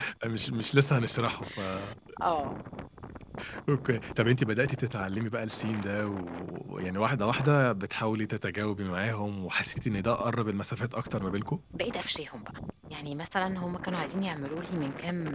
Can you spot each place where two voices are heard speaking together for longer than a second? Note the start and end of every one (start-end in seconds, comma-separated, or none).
none